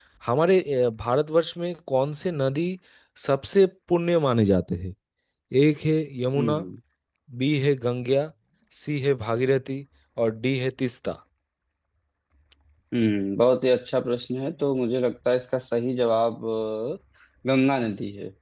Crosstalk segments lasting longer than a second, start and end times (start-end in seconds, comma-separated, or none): none